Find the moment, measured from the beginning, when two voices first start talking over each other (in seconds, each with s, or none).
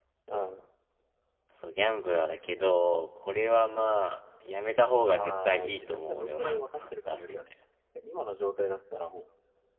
5.1 s